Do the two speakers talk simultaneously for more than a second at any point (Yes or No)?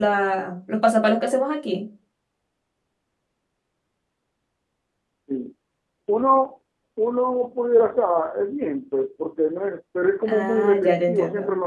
Yes